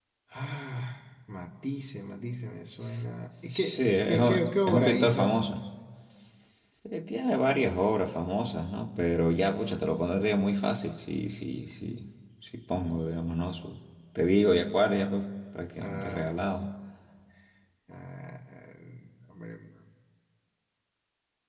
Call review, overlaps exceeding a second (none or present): present